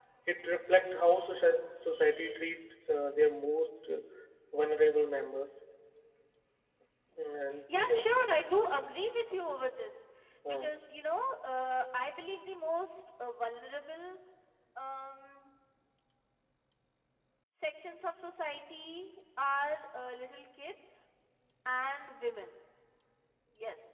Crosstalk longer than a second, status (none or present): none